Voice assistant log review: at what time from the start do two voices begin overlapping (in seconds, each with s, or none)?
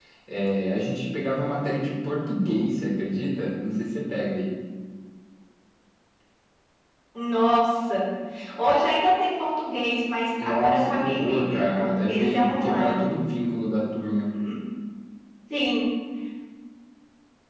10.4 s